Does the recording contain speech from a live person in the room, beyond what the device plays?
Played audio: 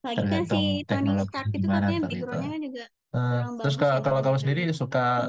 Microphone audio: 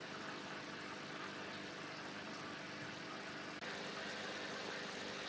No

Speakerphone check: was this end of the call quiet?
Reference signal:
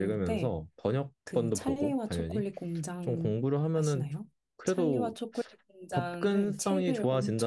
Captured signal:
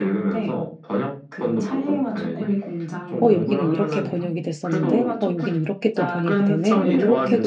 No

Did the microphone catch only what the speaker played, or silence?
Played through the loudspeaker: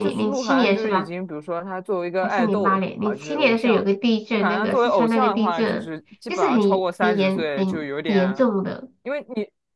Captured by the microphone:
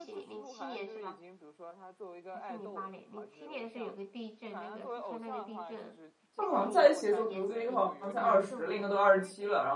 No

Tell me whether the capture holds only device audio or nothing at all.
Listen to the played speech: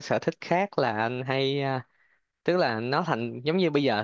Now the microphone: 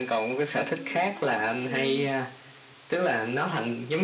No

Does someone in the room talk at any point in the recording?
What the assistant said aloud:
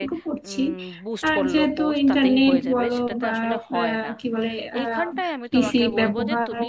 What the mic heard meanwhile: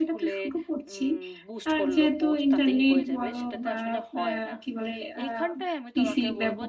No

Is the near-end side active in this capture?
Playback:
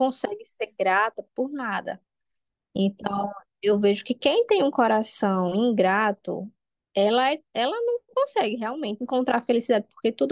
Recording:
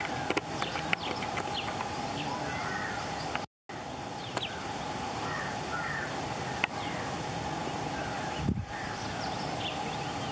No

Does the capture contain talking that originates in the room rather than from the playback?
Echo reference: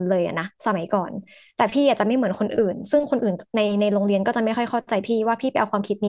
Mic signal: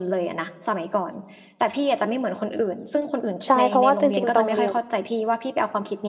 Yes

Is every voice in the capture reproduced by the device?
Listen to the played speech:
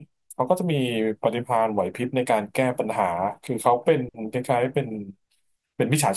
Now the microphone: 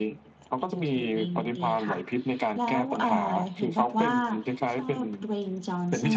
No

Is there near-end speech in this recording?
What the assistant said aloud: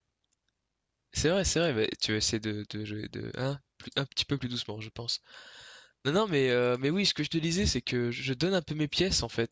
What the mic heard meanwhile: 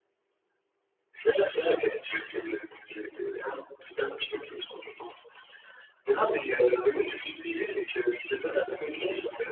No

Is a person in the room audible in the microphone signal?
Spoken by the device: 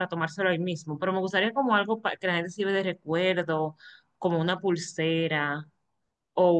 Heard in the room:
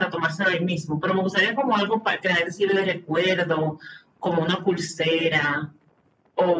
No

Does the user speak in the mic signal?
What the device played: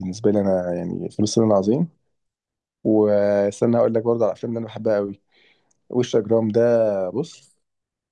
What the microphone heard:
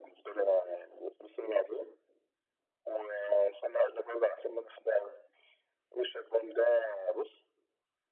No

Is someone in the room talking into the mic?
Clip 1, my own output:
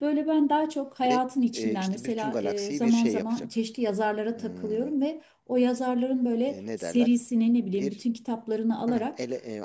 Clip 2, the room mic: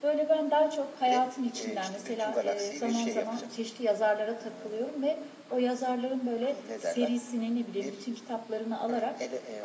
No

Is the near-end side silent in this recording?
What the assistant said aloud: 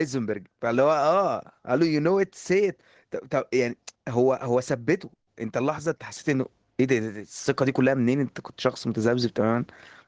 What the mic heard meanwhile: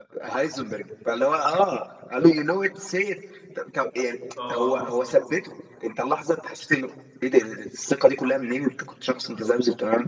No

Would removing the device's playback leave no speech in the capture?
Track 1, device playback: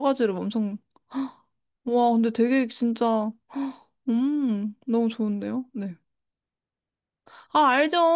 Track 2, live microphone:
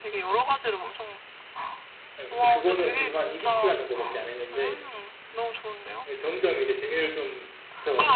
No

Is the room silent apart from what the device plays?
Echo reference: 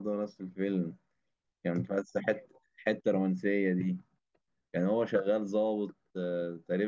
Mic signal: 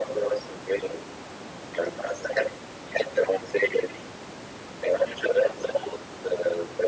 Yes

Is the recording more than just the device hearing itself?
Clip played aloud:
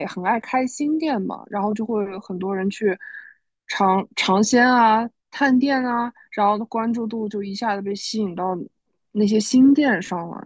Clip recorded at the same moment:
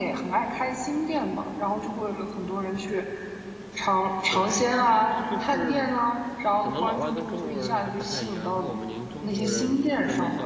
Yes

